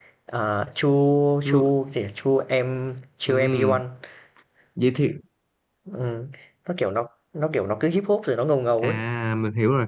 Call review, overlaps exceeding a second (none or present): none